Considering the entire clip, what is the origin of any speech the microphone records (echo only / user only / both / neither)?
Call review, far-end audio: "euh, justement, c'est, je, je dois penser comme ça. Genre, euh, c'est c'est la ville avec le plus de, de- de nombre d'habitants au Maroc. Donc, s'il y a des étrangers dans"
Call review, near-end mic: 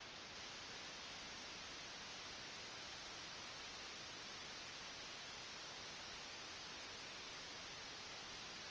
neither